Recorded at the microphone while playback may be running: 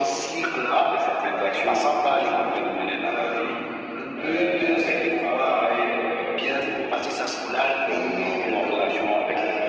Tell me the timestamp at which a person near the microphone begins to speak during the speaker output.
none

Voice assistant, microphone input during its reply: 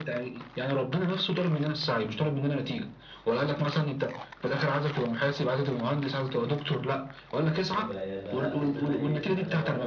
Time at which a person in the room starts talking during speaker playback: 7.7 s

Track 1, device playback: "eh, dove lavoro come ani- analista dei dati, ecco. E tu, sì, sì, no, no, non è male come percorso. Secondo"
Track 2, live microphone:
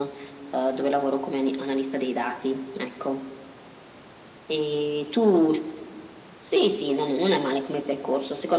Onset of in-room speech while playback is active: none

